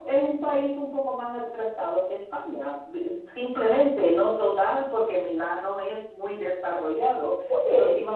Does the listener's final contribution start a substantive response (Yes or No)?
No